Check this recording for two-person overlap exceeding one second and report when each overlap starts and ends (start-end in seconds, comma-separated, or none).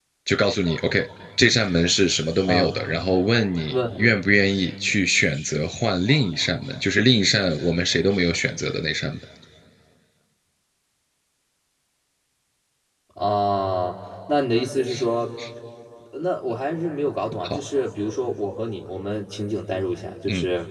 none